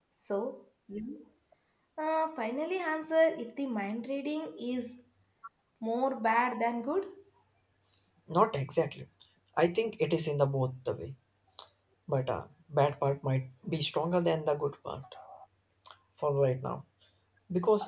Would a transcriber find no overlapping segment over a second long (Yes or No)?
Yes